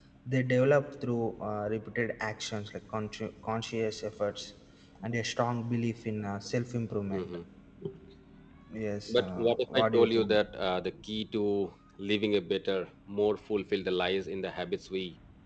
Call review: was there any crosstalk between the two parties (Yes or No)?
Yes